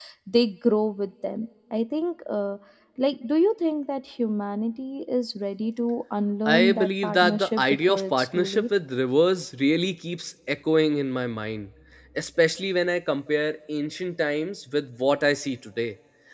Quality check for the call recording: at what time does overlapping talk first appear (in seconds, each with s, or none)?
6.5 s